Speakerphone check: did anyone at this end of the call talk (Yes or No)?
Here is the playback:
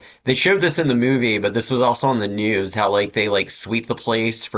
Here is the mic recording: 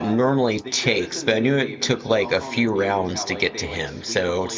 Yes